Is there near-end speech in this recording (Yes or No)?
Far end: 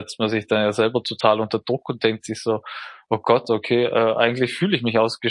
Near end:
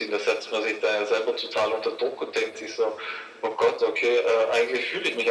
No